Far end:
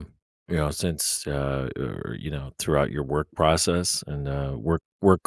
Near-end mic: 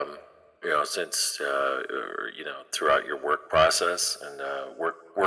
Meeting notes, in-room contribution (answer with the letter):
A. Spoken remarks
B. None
B